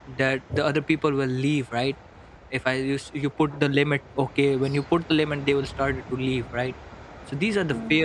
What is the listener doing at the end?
listening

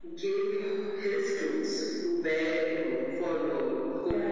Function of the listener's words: listening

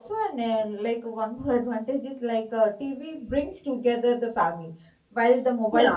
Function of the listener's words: listening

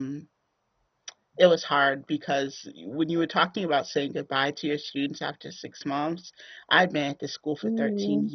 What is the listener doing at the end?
listening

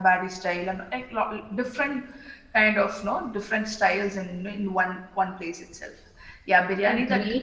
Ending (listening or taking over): taking over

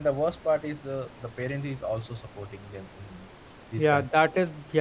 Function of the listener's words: taking over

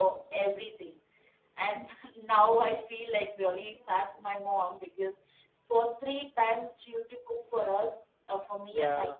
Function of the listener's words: listening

